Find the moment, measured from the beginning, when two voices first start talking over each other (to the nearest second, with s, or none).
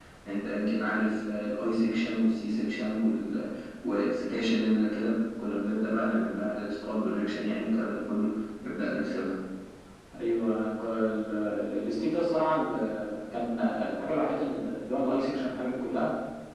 none